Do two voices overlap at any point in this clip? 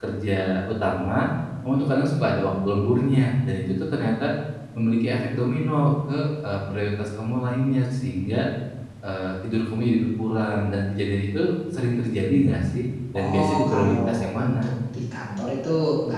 Yes, from 13.2 s

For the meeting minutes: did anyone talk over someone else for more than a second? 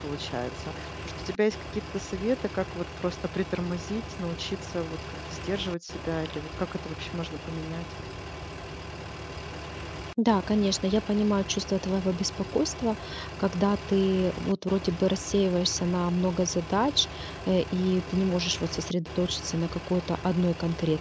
No

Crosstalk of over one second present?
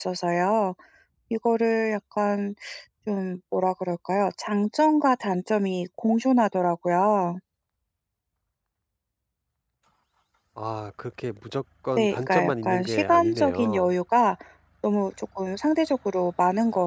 Yes, from 12.0 s

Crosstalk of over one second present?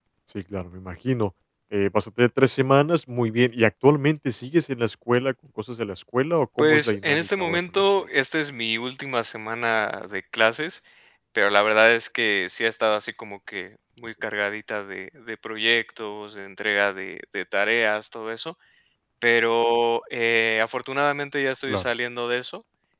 Yes, from 6.6 s

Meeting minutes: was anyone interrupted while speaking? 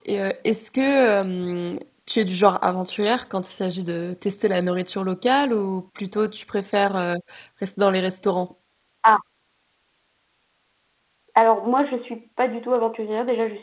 No

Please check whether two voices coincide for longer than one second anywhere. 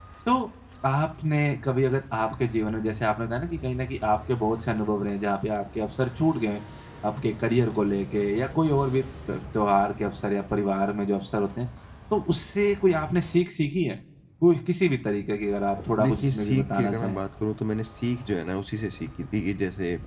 Yes, from 16.0 s

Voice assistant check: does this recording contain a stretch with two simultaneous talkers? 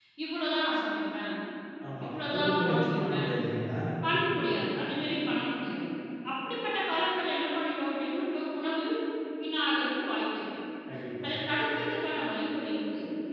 Yes, from 2.1 s

